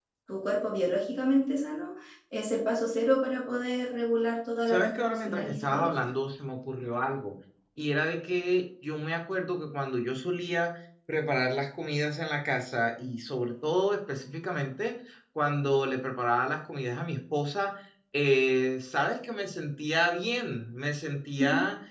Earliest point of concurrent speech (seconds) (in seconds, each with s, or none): 4.7 s